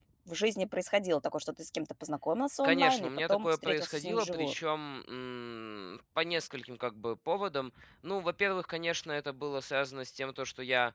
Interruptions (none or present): present